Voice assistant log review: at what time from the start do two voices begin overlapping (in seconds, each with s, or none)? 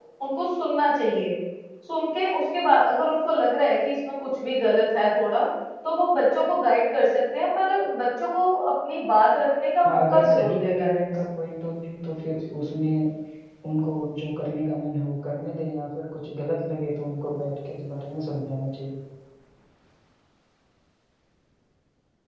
9.8 s